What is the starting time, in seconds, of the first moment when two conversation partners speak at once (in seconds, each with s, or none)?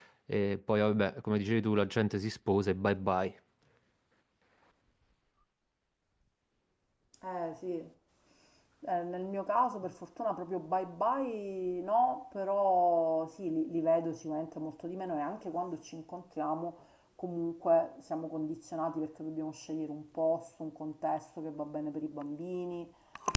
none